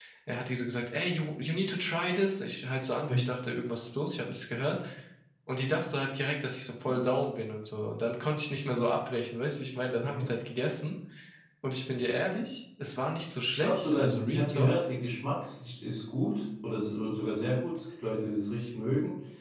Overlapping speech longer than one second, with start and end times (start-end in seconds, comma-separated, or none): 13.5-14.7